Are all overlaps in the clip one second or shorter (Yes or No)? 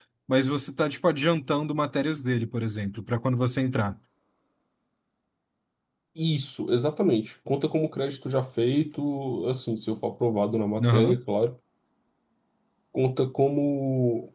Yes